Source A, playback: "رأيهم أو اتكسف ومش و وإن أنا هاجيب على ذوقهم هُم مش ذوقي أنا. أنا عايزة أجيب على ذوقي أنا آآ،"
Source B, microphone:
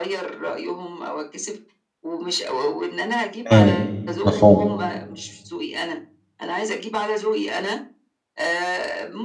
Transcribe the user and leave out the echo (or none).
امم، مفهوم.